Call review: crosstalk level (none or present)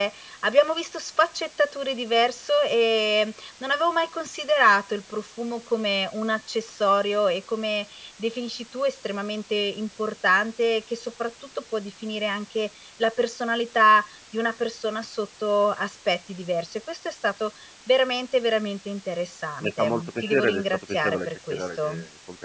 present